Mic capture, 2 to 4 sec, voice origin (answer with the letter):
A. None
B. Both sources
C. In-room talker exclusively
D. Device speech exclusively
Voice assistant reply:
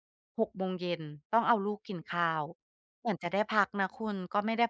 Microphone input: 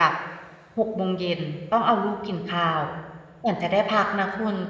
D